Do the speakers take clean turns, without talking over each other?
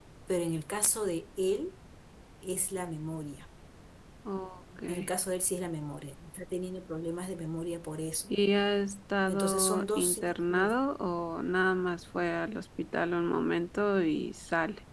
No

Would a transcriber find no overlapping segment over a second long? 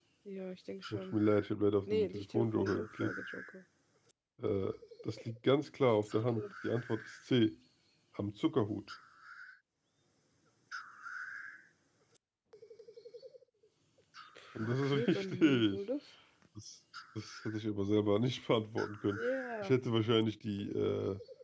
No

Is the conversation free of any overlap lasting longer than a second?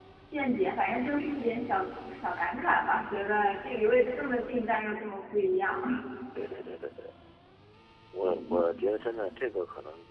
Yes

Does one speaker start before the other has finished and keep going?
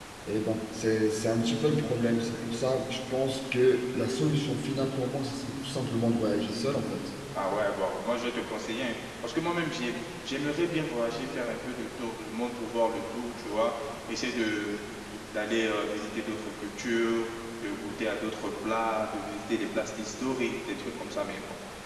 No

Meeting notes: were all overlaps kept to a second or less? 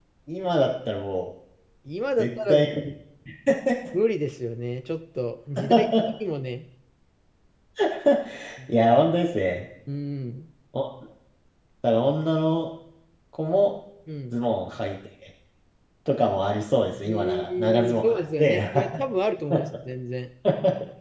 No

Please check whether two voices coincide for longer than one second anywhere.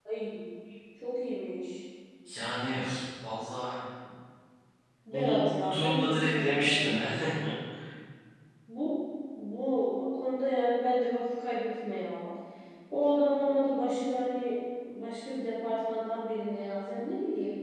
Yes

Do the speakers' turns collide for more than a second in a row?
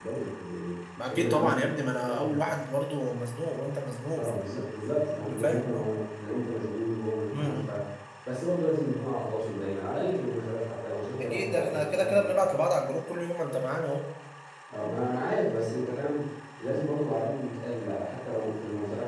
Yes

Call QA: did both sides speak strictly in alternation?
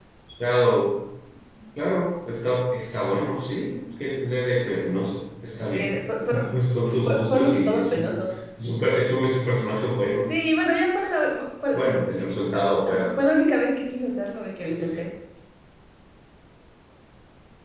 No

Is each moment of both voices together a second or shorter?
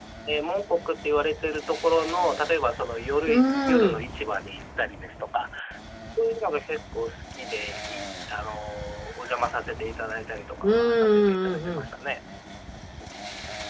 No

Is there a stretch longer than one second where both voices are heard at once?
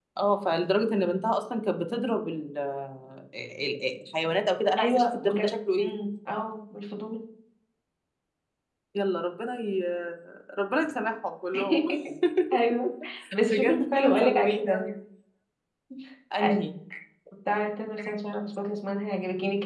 Yes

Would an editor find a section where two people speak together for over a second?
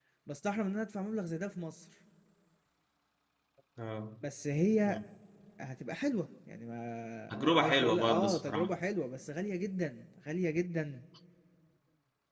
Yes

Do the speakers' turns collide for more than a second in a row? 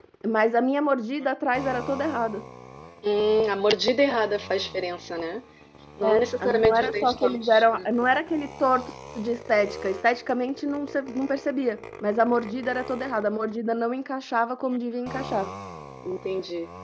Yes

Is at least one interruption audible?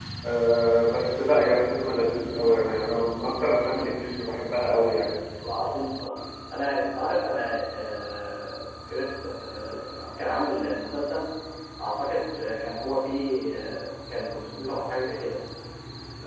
No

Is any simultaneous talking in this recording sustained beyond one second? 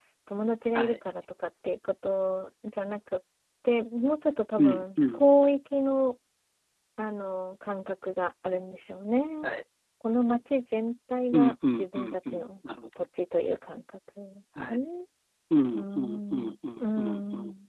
Yes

